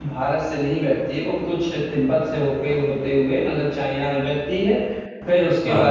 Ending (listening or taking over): listening